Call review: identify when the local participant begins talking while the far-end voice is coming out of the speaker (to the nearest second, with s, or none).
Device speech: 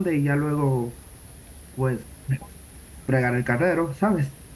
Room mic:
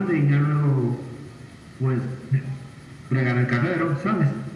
none